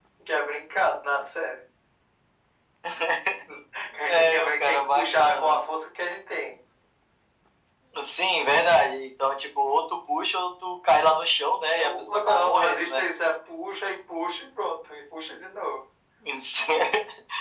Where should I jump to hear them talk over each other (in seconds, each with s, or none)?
4.1 s